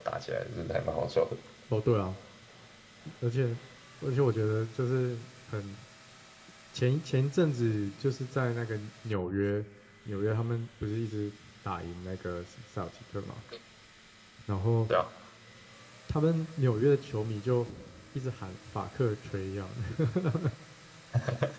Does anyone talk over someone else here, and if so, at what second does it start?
none

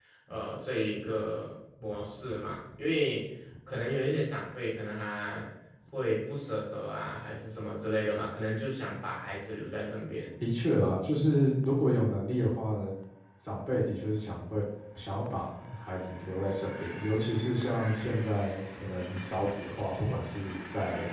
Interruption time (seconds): none

